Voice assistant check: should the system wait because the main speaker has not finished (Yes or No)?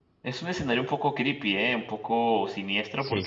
Yes